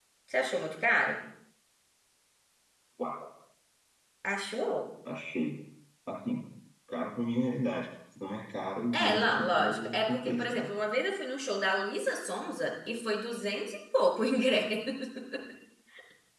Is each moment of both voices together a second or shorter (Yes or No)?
No